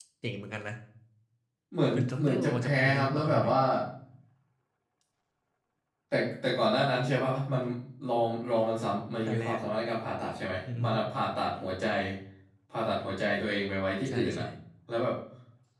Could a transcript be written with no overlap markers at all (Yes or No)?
No